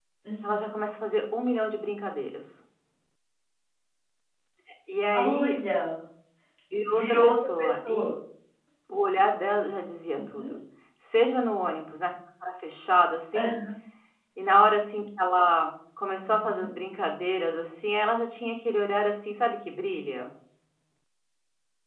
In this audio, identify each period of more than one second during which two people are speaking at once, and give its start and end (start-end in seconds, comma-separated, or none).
6.9-8.1